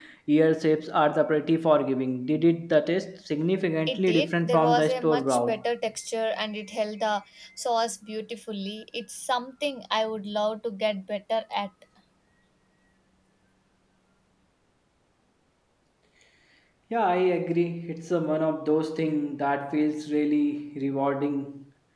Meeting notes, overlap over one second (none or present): present